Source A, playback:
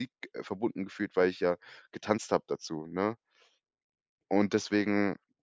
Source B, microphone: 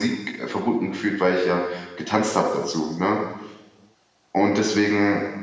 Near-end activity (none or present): none